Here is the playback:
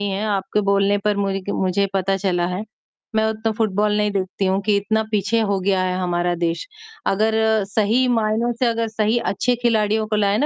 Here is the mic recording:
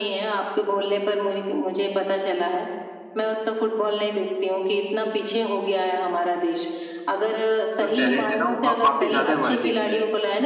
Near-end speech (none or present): present